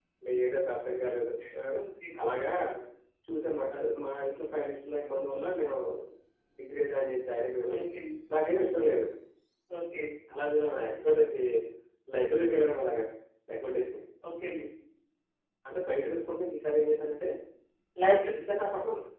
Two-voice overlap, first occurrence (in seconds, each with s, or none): none